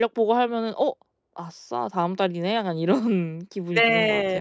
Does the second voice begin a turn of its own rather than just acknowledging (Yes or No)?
Yes